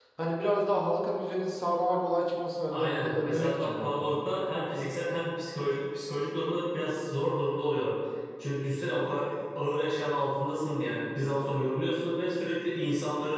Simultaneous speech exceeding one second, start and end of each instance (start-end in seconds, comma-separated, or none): 2.7-4.1